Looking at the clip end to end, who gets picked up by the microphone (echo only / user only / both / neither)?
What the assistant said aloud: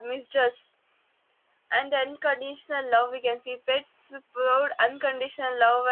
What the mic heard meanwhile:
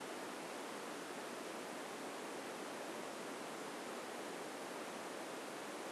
neither